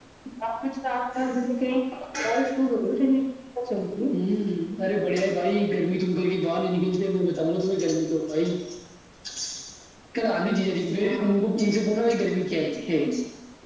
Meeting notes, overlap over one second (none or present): none